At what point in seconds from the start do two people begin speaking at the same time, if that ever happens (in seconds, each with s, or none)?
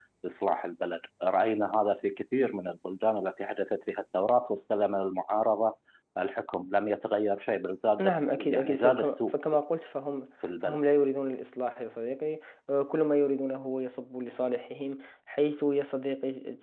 8.0 s